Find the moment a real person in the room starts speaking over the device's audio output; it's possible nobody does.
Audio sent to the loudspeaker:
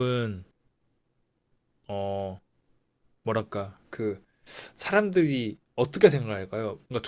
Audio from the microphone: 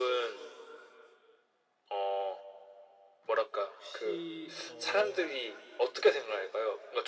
3.7 s

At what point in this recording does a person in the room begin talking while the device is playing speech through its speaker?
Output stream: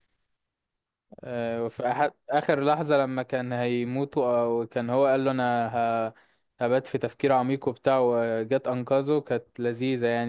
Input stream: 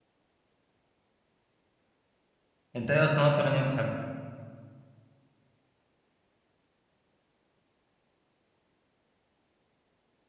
2.8 s

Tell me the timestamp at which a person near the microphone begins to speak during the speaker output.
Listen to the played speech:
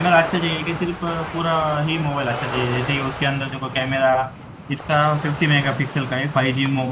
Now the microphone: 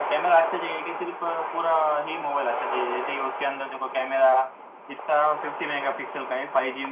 none

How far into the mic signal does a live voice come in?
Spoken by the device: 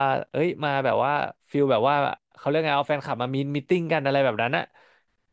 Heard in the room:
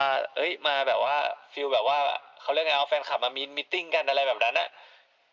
none

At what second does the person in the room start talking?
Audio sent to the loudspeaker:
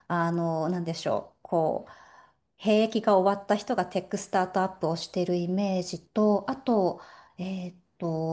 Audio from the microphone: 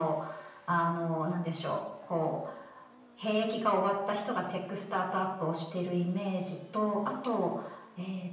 none

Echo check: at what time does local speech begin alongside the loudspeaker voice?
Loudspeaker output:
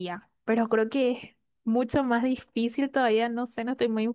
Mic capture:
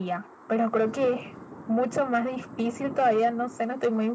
none

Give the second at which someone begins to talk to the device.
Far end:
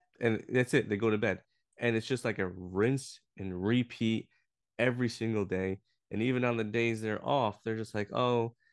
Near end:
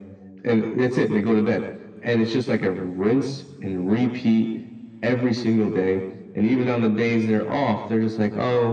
none

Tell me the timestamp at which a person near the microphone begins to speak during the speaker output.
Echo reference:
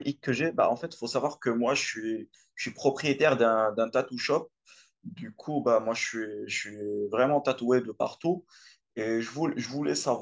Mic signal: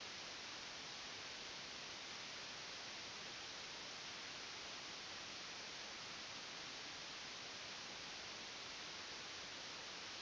none

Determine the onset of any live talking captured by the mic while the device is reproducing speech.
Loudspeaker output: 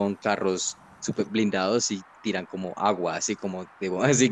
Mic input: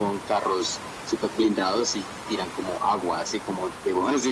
none

